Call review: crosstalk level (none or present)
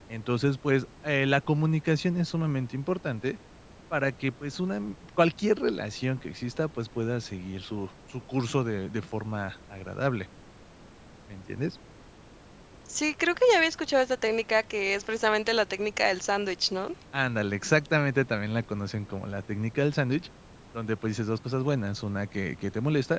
none